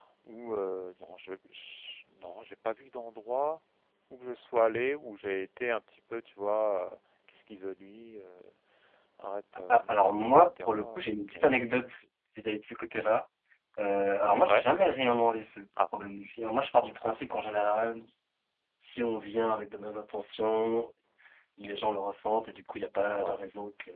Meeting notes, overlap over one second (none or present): present